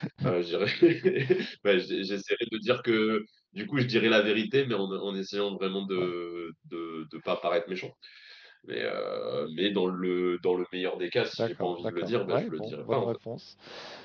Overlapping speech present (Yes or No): Yes